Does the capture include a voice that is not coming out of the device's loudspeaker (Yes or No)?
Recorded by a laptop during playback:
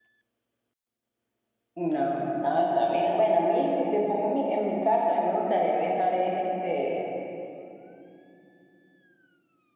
Yes